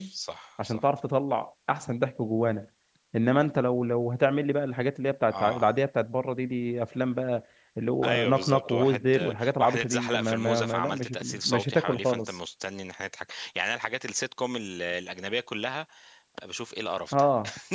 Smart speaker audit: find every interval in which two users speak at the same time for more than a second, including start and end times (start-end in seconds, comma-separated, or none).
8.0-12.4